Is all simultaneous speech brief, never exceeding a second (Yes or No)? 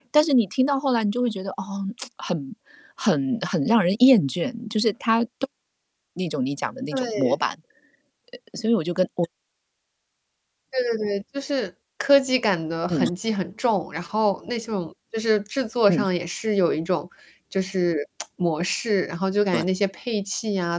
Yes